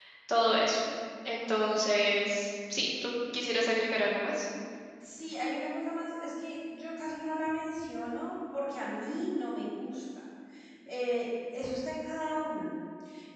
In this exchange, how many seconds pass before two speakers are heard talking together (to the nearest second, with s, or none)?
none